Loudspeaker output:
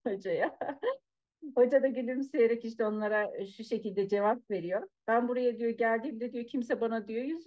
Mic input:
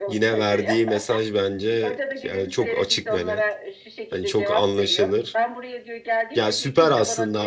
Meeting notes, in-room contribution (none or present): present